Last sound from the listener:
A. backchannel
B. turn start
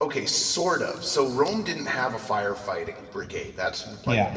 A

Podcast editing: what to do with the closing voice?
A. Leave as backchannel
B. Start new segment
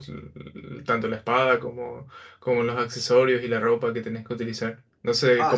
B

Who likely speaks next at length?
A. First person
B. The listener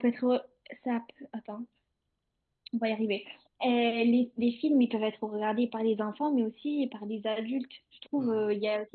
A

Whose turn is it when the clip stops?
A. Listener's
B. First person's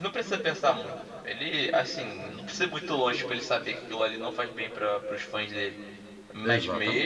B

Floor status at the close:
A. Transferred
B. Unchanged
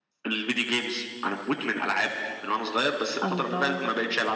B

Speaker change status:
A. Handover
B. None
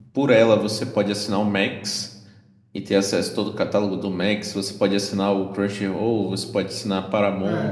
A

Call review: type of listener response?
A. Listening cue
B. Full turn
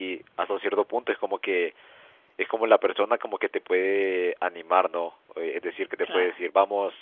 A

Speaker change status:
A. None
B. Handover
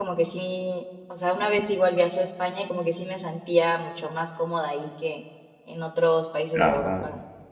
B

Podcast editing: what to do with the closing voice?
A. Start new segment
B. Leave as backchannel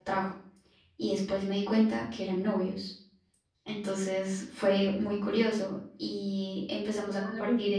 B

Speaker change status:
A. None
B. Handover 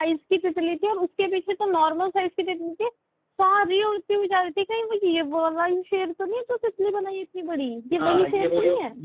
B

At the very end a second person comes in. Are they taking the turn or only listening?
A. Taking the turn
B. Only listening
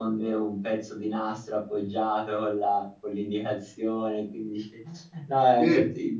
B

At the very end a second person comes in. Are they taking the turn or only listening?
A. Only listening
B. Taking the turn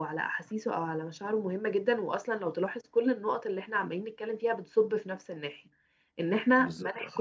A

